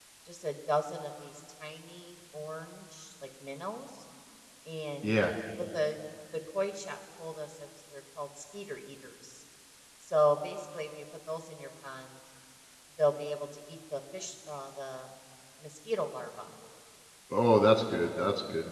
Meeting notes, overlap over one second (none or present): none